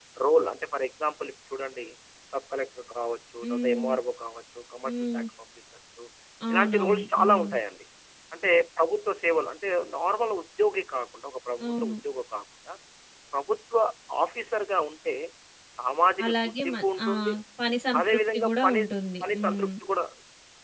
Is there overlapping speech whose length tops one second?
Yes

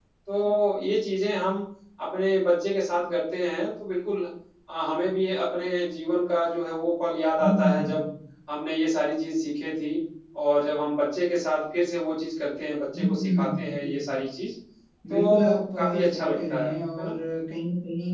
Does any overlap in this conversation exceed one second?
Yes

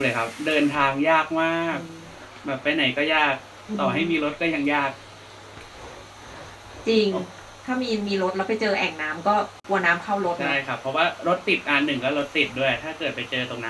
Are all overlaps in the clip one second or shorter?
Yes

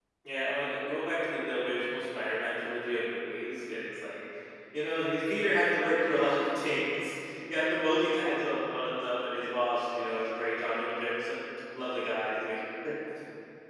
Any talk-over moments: No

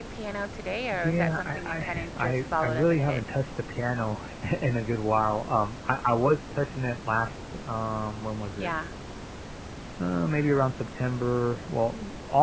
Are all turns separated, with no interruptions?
No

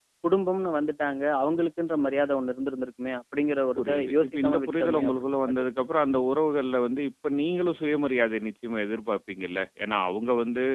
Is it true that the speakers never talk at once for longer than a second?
No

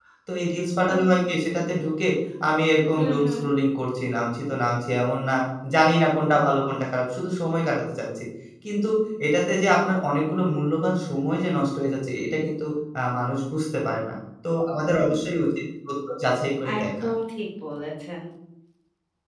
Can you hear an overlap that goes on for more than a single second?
No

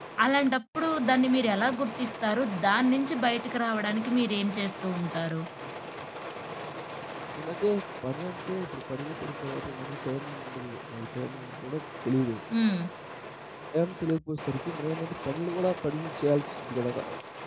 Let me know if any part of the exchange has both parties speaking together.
No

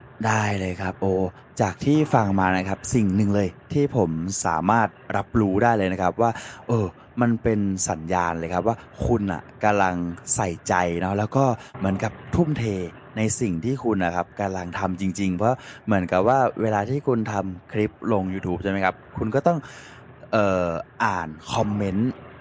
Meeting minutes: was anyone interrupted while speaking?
No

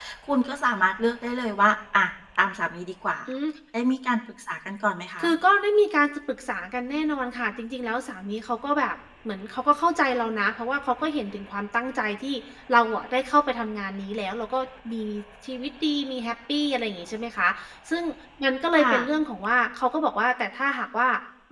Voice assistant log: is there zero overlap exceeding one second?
Yes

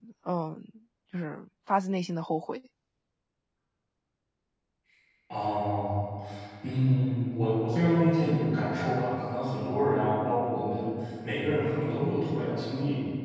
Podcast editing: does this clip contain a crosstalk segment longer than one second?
No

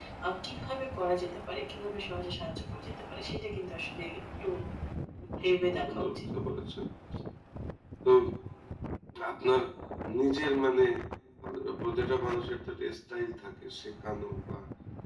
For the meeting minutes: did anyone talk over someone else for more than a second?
No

